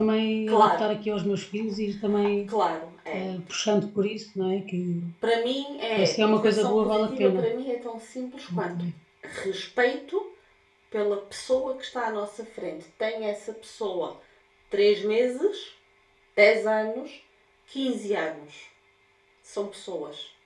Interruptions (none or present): present